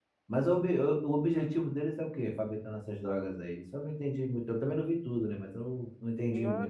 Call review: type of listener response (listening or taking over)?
taking over